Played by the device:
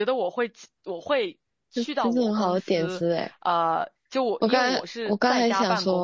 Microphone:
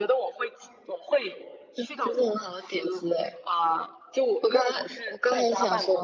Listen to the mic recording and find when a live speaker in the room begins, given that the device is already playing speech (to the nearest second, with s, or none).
none